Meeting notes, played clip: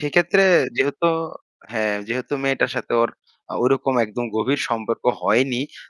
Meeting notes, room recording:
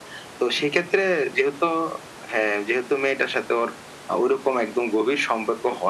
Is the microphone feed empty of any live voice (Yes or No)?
Yes